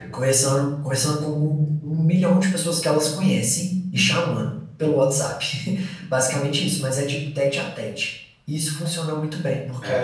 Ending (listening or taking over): listening